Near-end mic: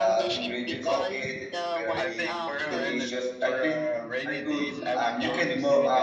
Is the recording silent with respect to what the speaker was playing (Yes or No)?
No